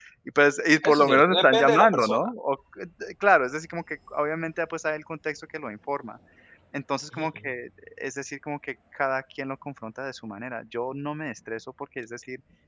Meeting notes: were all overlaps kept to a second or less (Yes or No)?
No